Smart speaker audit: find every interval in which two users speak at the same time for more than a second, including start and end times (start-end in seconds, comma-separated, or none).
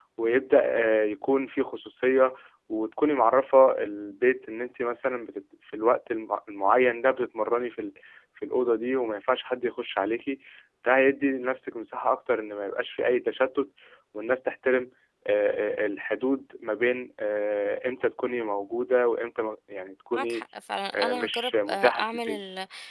20.9-22.4